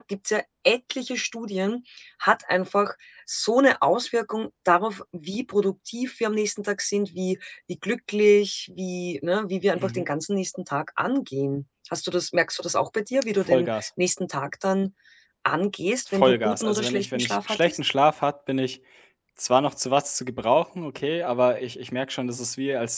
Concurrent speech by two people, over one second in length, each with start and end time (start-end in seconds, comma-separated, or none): 16.1-17.8